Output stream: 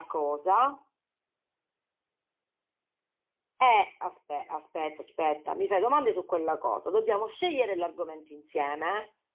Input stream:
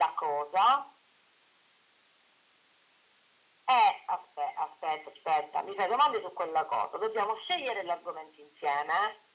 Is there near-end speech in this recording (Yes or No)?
No